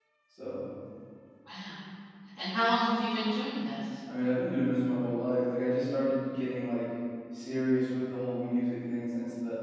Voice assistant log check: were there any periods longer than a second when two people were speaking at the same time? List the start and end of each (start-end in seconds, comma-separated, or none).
none